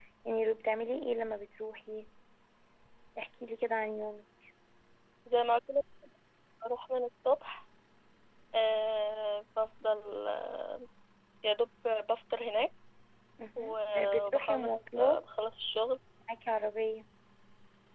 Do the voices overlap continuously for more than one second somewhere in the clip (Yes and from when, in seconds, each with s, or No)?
Yes, from 13.6 s